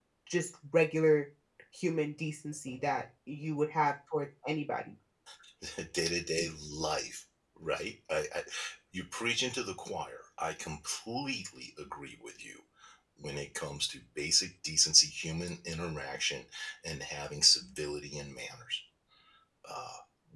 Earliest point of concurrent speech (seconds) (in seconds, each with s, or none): none